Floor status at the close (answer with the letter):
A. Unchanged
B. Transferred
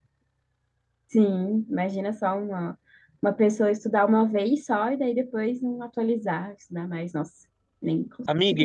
B